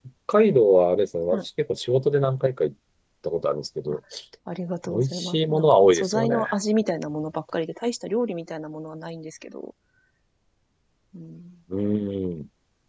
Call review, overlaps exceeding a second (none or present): present